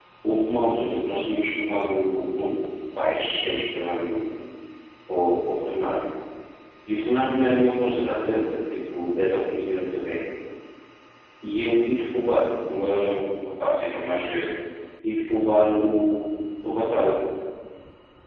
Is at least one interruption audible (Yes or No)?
No